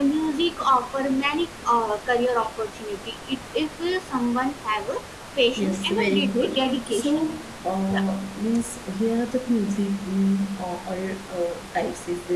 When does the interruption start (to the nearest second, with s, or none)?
6 s